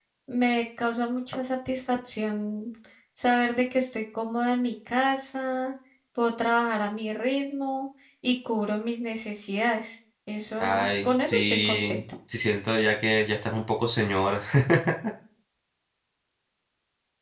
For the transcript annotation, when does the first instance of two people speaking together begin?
10.6 s

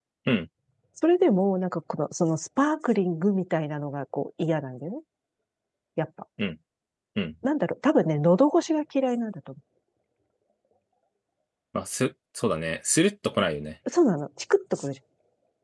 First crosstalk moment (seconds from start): none

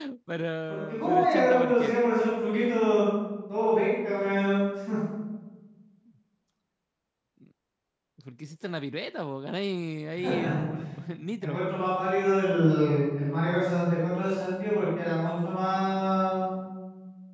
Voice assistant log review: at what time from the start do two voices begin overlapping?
0.7 s

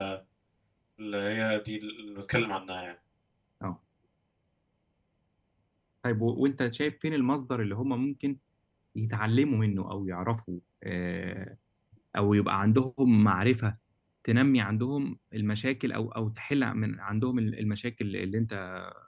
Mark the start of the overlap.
none

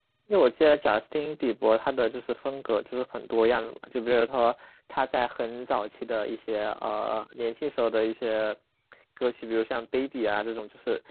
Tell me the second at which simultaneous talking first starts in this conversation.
none

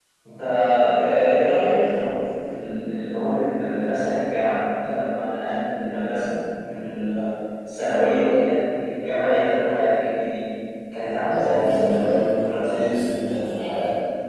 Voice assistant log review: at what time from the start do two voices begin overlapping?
11.3 s

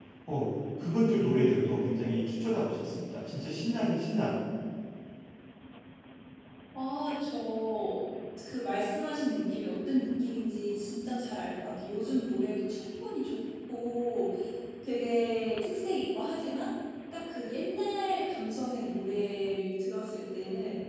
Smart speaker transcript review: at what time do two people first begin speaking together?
none

